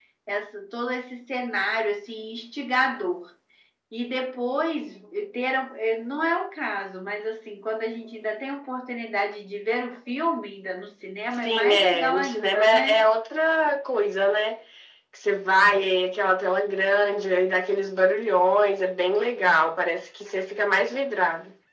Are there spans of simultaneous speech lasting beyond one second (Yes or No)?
Yes